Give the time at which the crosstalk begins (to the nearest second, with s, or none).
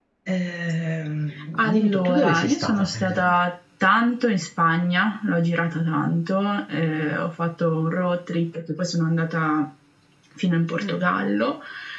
2 s